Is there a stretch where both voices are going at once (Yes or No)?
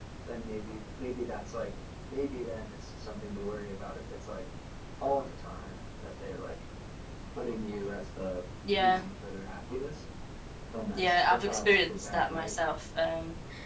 Yes